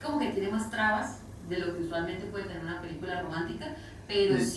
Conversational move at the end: listening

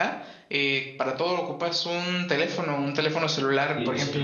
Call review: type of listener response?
taking over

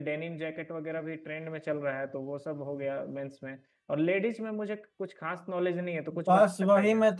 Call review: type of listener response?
taking over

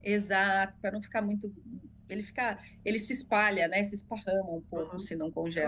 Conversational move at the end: taking over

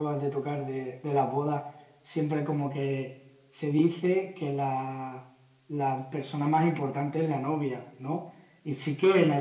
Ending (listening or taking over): listening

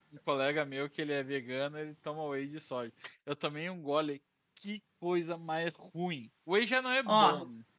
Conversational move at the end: taking over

